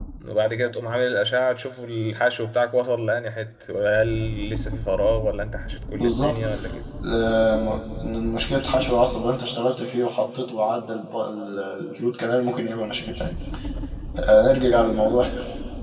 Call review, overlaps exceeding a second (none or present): none